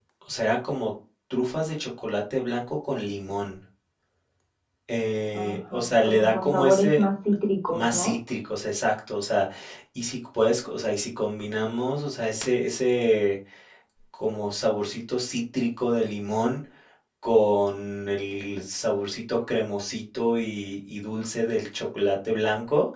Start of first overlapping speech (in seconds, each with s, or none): 5.3 s